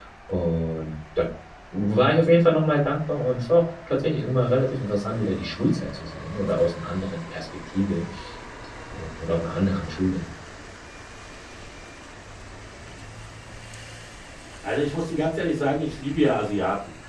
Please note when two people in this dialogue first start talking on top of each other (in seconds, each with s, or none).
none